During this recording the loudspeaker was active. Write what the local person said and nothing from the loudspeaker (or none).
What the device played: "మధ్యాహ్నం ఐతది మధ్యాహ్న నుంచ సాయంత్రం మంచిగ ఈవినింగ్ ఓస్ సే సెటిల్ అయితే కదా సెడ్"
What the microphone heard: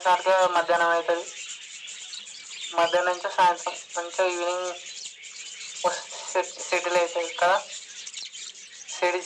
none